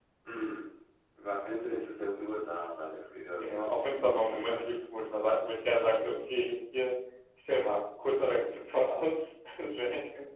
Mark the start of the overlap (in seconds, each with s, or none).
3.4 s